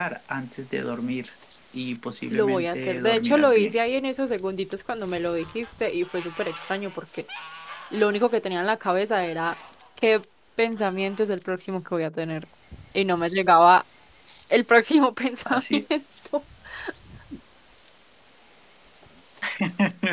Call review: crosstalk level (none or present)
present